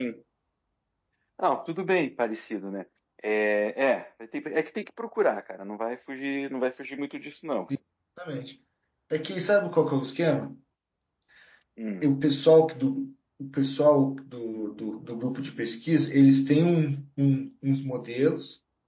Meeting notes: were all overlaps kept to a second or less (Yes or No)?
Yes